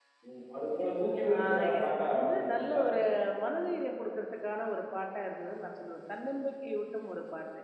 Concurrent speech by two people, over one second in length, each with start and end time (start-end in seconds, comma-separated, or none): 1.3-2.8